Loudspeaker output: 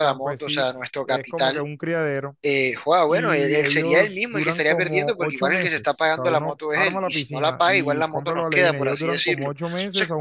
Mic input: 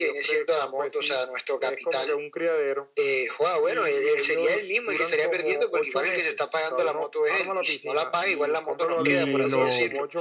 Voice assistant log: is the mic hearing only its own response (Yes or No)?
No